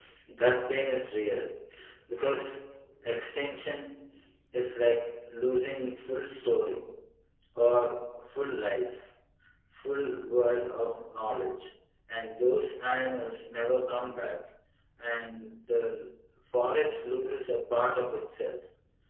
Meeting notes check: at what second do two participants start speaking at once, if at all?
none

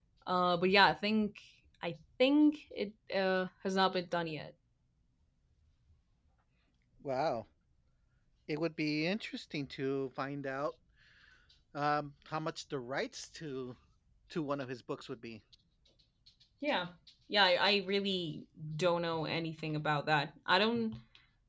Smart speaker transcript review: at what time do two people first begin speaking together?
none

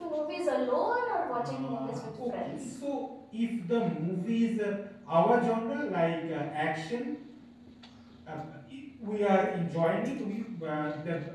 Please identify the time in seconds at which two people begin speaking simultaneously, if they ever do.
1 s

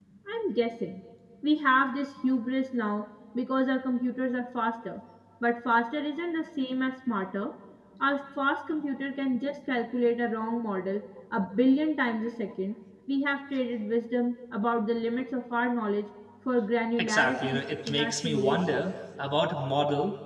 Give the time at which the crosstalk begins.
17 s

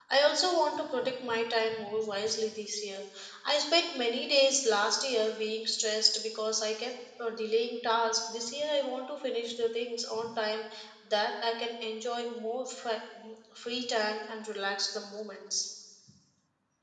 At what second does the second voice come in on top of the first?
none

